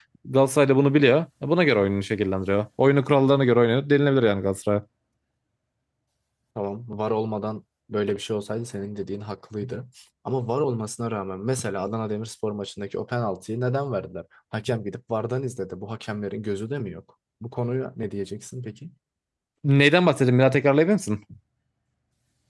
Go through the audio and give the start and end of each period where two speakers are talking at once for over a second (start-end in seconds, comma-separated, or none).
none